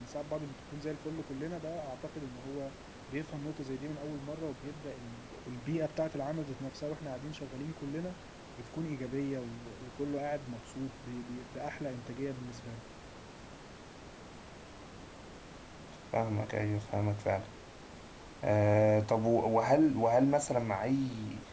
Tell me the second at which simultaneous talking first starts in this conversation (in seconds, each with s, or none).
none